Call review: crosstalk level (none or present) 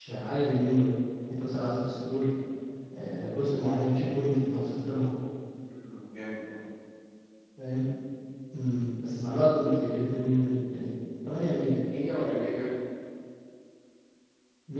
none